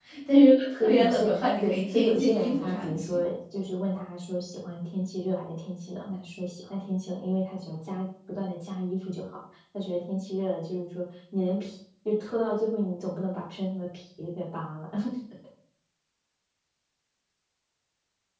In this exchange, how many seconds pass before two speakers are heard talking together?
0.8 s

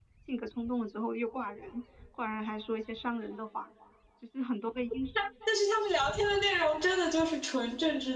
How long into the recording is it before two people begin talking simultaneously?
none

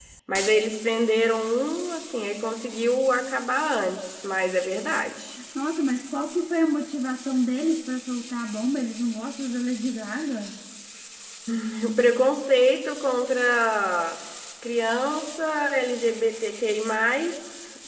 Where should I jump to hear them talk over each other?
none

